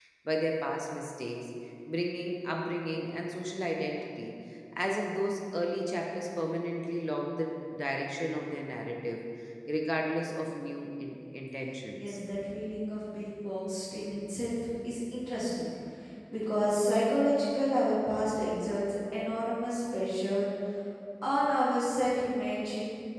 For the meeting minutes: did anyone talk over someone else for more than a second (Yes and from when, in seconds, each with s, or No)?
No